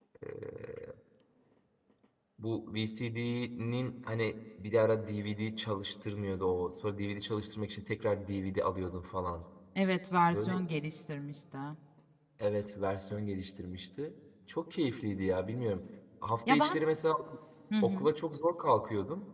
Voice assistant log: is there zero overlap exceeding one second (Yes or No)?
Yes